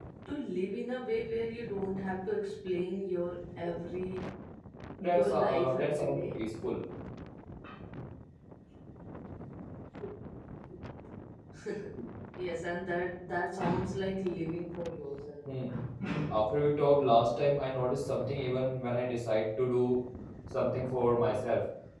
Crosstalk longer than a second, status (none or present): present